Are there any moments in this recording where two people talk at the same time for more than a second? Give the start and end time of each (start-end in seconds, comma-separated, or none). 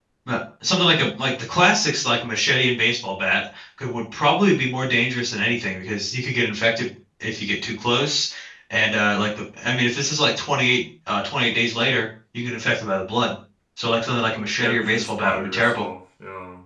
14.6-15.8